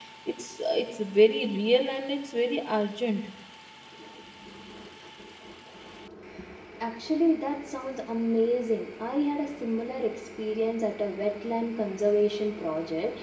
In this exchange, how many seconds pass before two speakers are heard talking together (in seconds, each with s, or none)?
none